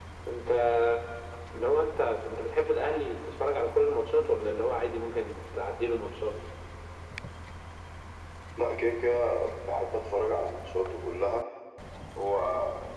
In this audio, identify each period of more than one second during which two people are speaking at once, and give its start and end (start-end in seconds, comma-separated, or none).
none